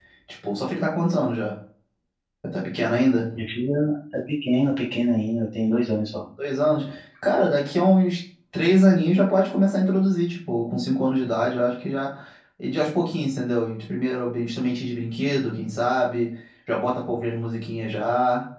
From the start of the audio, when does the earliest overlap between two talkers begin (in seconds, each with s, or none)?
none